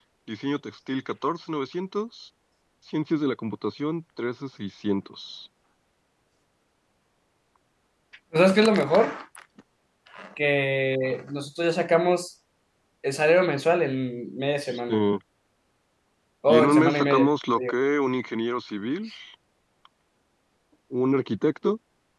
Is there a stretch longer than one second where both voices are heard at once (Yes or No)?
Yes